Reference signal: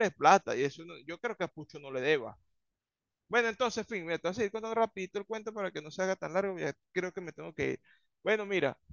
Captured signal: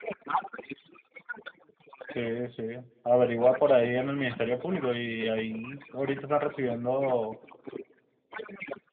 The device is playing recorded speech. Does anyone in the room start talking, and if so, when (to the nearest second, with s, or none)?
2 s